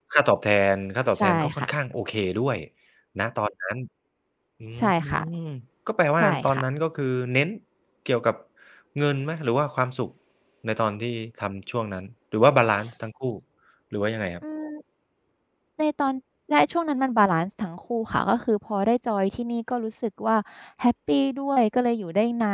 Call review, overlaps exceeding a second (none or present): none